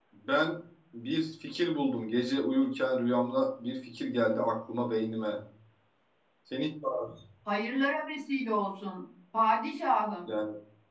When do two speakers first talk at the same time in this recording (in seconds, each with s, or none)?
none